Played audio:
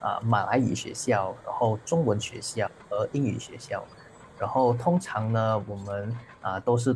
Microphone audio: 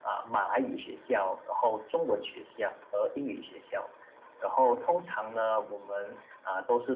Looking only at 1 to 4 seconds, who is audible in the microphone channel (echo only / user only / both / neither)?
echo only